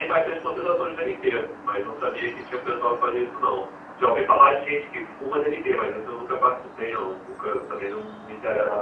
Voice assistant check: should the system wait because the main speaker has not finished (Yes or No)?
No